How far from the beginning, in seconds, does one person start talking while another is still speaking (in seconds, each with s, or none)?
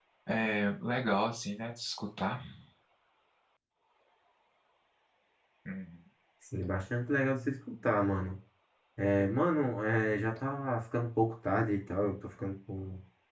none